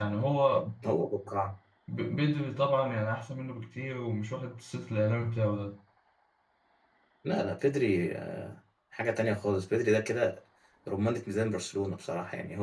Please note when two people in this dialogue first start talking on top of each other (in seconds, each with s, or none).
none